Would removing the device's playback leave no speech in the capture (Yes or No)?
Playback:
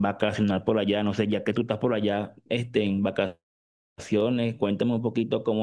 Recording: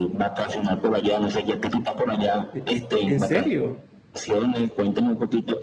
No